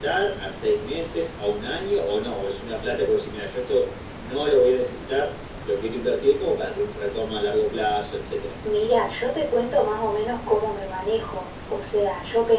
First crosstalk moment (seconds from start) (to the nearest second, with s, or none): none